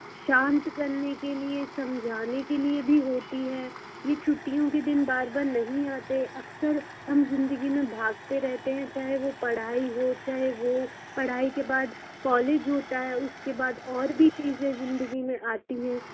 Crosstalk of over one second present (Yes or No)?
No